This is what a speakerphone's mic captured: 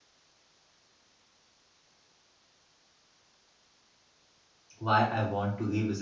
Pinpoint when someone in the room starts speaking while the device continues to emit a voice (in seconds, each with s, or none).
4.8 s